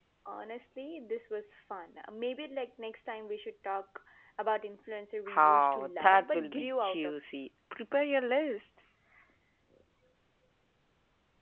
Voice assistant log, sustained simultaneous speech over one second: present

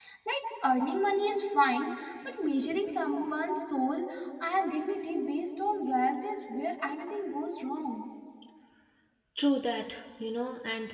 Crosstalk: none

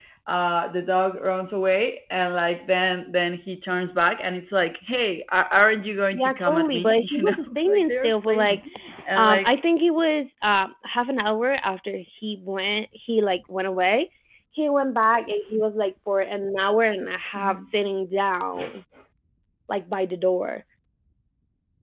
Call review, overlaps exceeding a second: present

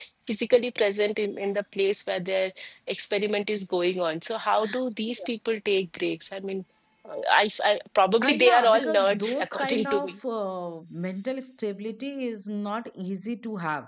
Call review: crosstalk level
present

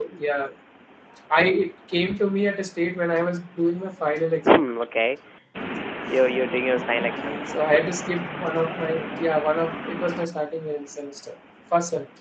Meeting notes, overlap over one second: none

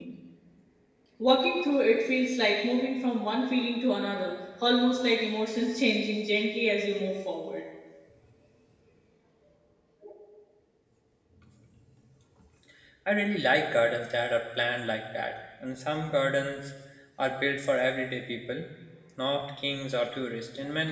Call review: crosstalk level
none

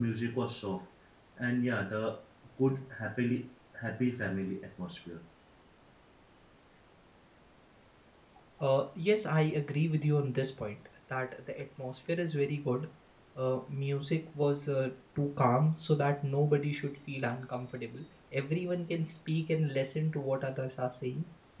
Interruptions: none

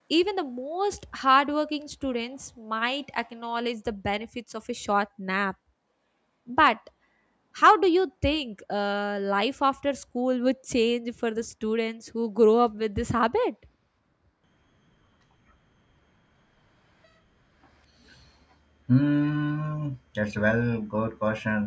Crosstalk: none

